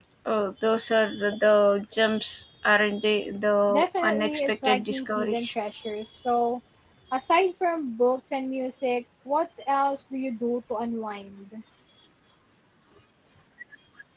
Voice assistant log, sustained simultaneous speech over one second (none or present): present